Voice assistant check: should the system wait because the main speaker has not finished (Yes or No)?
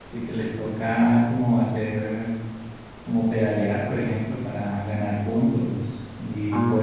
Yes